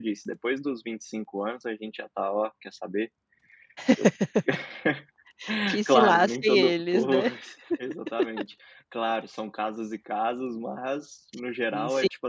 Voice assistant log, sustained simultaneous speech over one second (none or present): present